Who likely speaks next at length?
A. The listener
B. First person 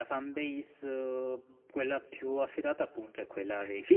A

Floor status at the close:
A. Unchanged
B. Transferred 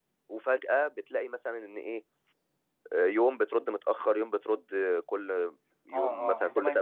B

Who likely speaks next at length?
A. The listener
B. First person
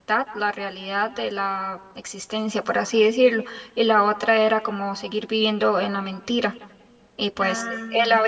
B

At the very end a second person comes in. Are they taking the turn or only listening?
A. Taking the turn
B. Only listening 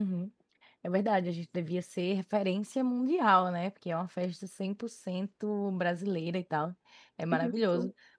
B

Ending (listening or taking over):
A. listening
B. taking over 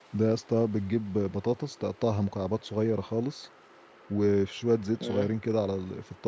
A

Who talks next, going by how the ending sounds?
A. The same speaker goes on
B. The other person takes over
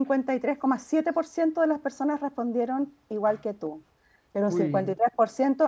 A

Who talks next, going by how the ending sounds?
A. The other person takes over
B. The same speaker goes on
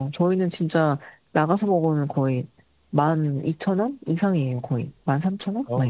A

